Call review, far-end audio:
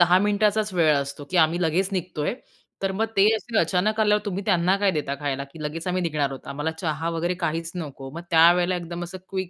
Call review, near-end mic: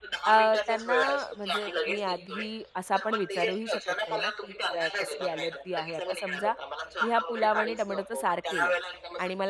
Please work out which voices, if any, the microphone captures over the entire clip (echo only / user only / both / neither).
both